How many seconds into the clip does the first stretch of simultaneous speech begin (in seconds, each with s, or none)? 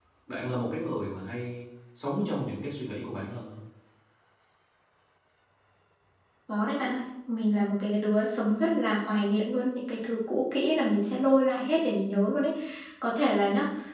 none